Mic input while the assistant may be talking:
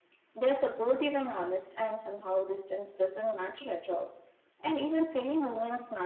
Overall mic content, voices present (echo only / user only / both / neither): echo only